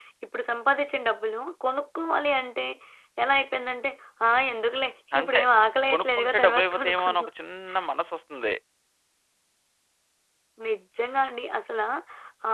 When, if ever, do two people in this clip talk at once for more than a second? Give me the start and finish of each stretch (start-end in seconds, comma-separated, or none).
5.9-7.3